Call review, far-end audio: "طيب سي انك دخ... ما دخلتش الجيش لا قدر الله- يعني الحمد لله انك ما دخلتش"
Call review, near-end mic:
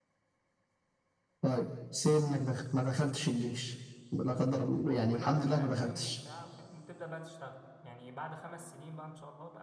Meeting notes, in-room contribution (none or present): present